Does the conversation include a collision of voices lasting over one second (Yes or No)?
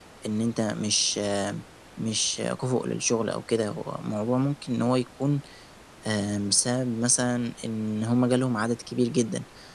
No